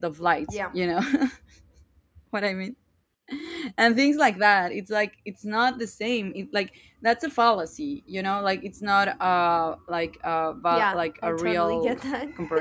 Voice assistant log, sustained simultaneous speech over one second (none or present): present